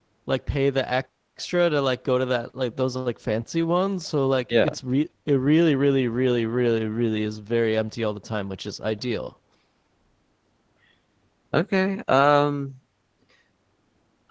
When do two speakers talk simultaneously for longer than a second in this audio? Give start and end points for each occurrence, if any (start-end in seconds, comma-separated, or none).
none